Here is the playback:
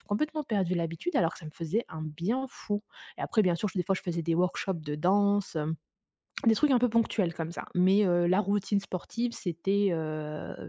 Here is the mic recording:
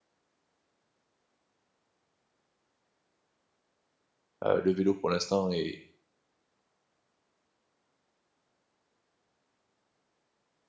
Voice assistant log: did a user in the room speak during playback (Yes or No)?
Yes